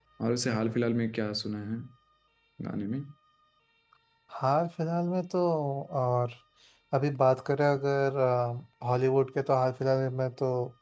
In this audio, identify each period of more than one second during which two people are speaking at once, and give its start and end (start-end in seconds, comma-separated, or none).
none